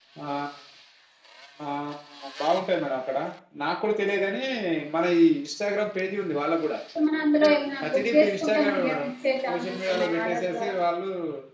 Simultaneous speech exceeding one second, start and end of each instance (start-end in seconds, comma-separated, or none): 7.8-9.1, 9.5-10.7